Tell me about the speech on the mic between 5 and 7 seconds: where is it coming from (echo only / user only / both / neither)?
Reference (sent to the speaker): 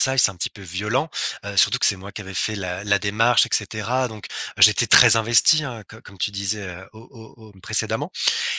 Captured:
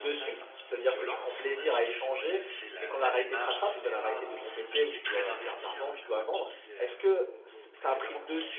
both